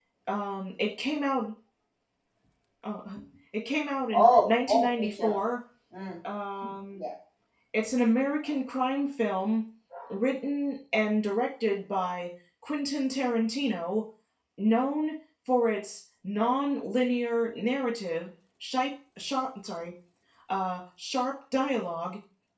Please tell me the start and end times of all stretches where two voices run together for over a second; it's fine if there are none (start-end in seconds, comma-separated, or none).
4.1-5.4